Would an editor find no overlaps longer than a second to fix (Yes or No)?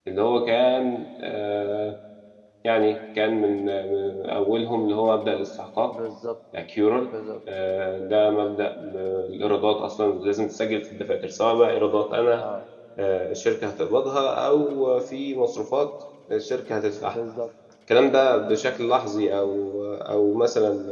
Yes